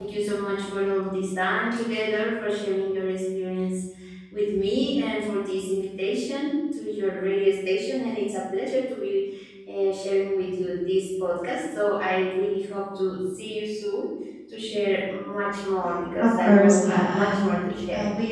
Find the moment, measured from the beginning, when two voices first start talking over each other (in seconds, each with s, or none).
16.2 s